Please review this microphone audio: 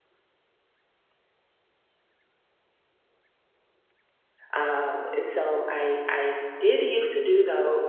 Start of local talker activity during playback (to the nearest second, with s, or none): 5 s